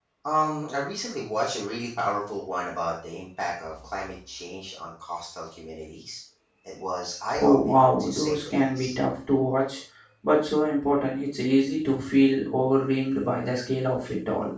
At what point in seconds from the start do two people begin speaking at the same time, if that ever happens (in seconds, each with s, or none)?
7.4 s